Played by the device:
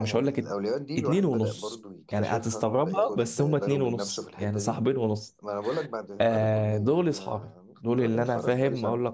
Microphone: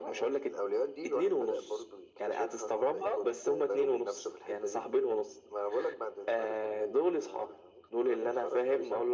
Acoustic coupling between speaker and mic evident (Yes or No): Yes